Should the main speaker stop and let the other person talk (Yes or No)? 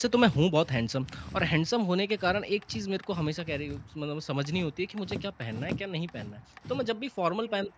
No